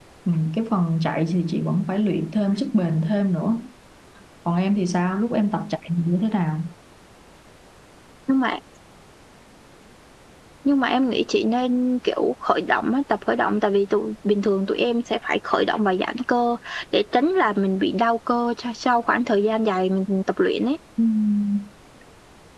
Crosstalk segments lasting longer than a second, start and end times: none

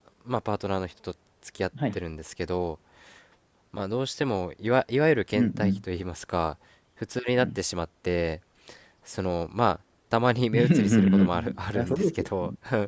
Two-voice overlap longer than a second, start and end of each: 10.5-12.3

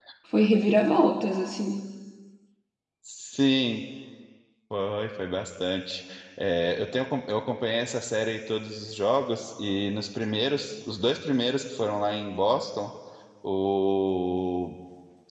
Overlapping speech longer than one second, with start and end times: none

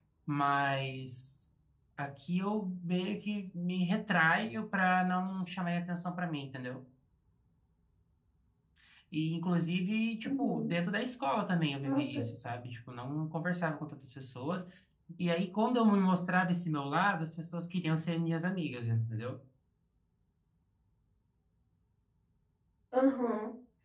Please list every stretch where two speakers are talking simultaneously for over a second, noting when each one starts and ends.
none

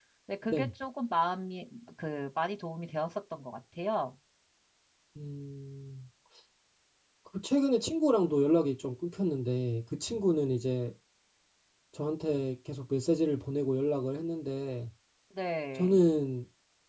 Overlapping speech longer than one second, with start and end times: none

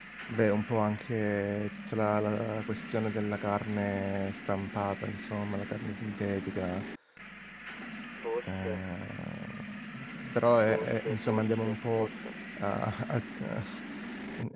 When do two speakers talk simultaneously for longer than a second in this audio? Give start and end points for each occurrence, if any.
10.7-12.1

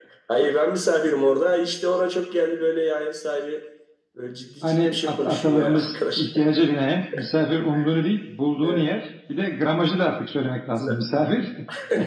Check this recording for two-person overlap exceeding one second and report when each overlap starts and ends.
4.6-6.3

